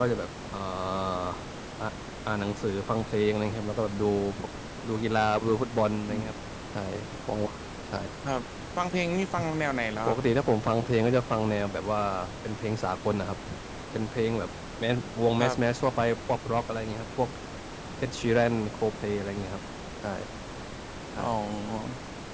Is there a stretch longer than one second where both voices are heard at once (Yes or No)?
No